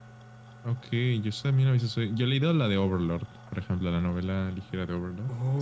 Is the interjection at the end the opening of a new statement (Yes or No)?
Yes